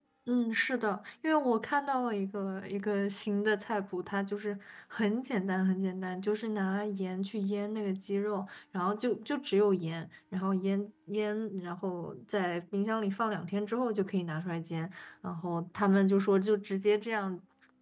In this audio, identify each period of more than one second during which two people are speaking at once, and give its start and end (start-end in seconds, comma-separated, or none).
none